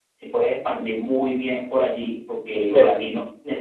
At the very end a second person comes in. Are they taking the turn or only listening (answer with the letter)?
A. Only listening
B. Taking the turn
A